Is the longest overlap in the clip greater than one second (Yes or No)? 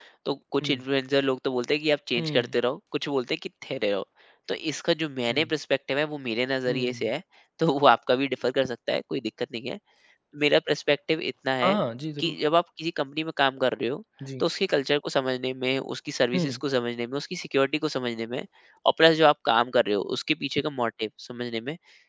No